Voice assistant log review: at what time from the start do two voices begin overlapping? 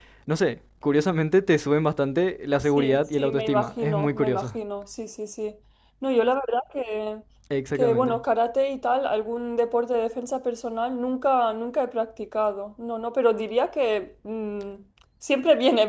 2.8 s

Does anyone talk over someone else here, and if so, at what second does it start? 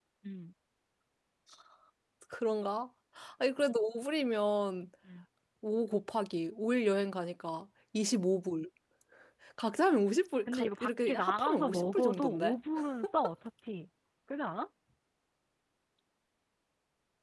10.5 s

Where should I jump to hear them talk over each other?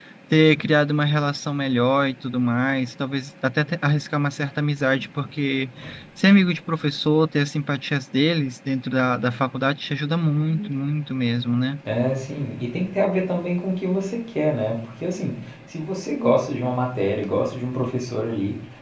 none

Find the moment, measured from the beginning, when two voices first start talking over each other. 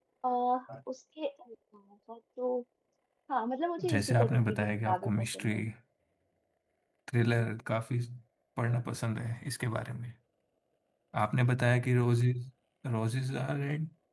3.9 s

